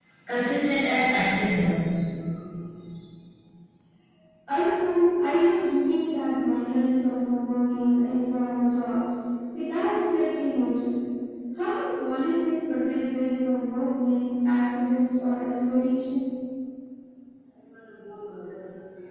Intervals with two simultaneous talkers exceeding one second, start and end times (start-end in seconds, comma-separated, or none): none